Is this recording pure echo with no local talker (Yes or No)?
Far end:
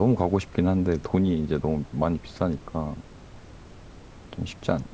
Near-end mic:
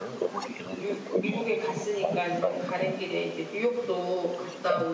No